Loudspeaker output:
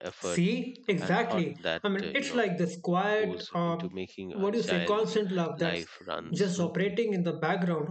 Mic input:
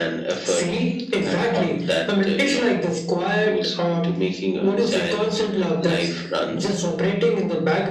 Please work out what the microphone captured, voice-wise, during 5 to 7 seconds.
echo only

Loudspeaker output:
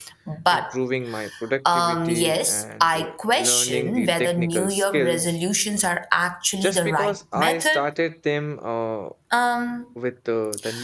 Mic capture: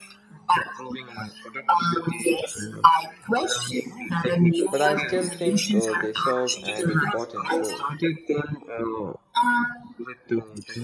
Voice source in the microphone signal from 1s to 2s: echo only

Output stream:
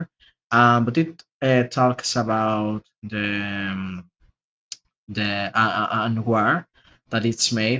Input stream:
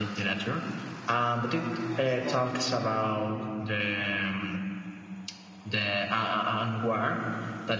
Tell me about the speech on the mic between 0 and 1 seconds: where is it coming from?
echo only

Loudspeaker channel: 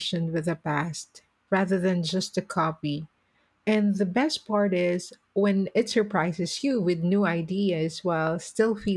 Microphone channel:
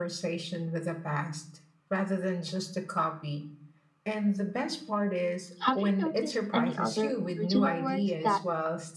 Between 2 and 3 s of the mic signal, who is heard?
echo only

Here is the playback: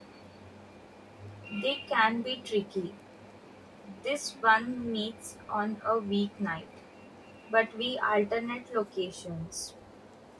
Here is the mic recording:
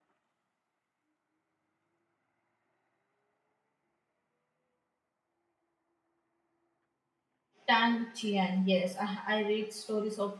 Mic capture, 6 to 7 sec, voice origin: neither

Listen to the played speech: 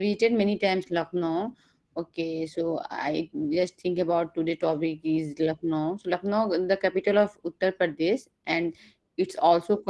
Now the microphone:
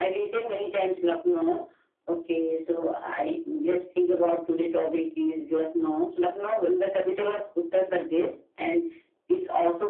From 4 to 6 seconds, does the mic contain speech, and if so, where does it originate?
echo only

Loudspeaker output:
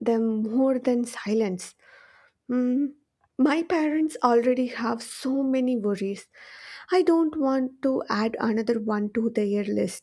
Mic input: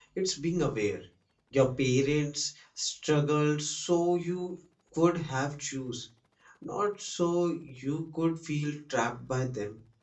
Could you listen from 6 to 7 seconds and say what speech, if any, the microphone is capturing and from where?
user only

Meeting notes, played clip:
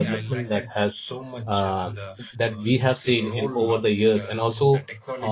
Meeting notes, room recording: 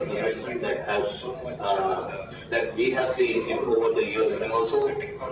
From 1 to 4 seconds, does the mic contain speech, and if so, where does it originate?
echo only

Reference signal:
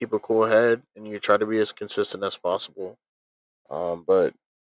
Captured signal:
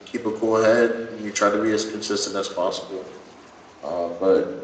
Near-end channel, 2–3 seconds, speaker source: echo only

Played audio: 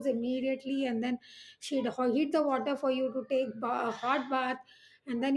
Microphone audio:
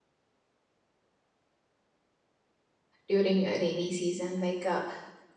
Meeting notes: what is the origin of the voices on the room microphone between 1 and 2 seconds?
neither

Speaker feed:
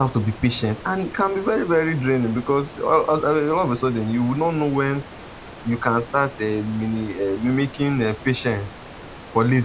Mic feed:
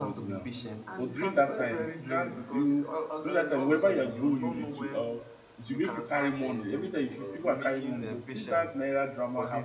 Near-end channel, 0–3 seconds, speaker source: both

